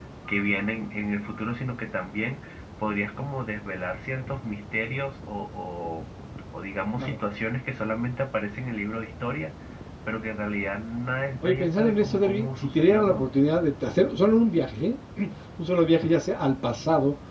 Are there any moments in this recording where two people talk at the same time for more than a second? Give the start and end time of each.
11.4-13.3

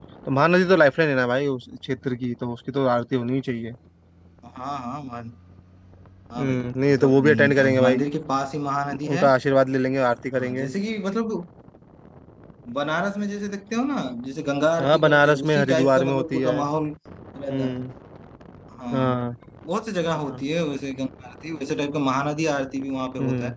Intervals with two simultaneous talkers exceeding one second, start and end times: 6.4-8.0, 14.8-16.6

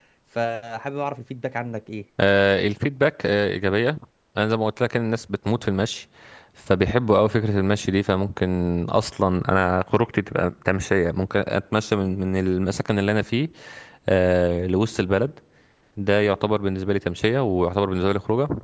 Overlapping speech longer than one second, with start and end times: none

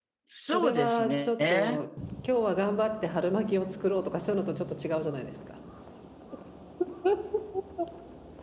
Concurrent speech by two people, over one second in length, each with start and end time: 0.5-1.8

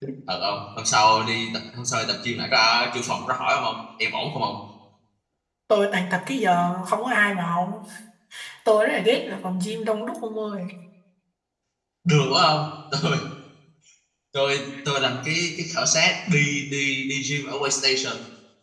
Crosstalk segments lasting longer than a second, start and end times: none

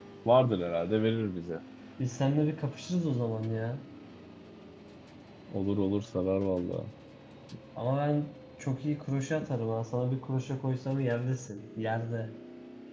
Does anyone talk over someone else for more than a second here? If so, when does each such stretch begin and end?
none

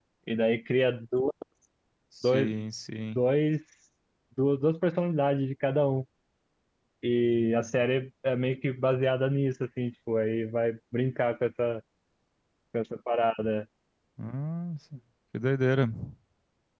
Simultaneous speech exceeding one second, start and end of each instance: none

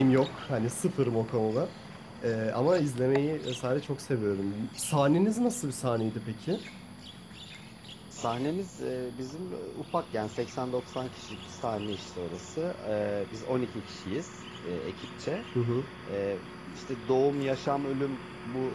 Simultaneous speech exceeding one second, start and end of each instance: none

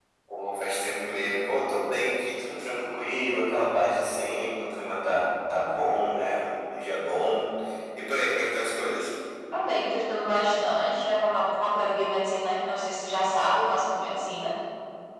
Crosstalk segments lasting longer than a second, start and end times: none

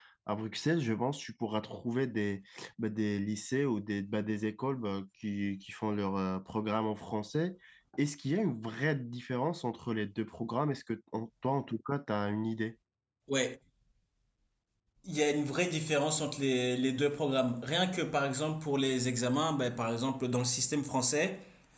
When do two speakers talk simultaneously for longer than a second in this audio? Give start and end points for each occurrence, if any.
none

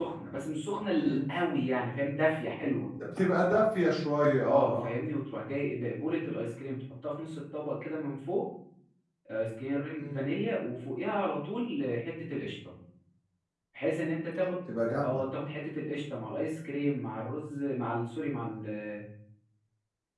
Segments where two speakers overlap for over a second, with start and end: none

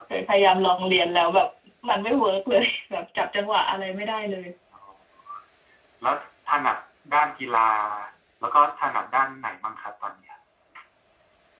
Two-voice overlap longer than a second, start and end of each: none

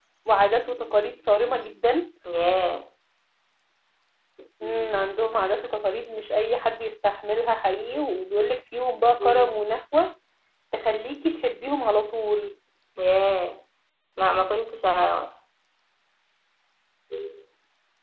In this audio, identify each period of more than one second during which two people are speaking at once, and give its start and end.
none

